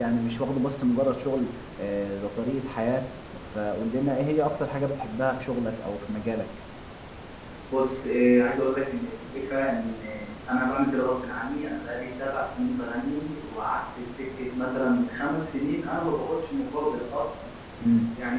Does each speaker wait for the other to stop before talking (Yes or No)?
Yes